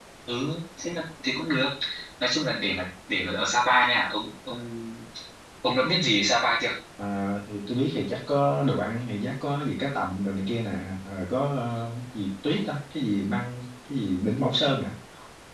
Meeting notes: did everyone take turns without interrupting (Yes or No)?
Yes